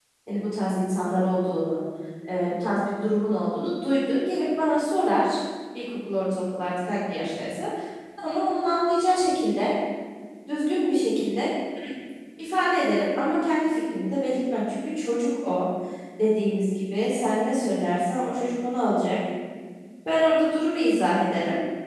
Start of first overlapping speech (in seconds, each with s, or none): none